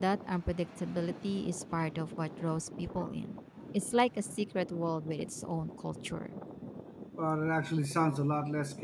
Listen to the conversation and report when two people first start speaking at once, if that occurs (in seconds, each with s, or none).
none